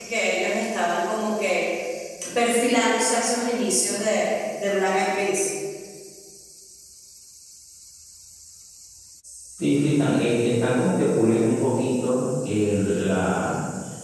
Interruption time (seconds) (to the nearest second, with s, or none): none